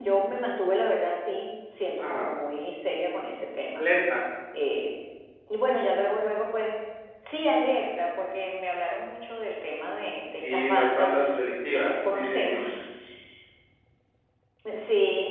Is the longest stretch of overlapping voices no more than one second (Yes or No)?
No